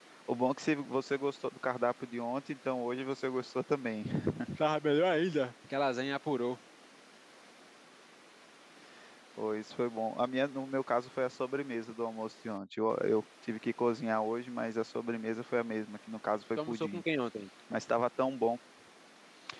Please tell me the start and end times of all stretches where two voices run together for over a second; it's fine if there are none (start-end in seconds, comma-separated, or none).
none